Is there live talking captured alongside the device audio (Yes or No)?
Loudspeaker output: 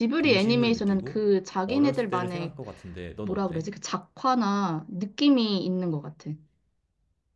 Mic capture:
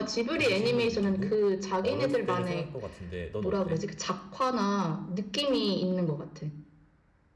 No